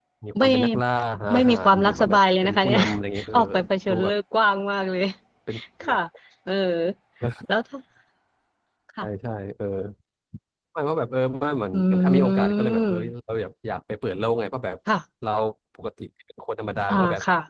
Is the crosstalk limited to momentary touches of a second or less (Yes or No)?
No